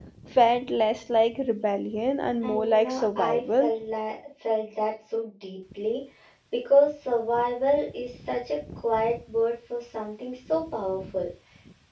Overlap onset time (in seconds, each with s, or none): 2.4 s